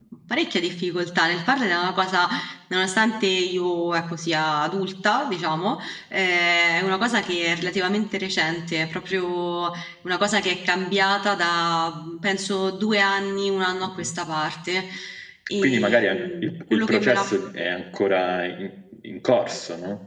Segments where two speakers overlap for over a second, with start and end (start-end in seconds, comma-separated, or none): 15.6-17.3